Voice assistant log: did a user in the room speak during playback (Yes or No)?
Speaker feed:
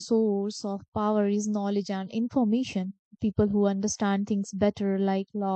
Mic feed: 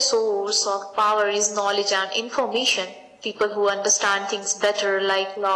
No